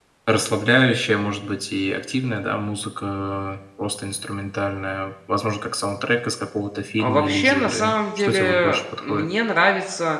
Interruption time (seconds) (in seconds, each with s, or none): 7.0 s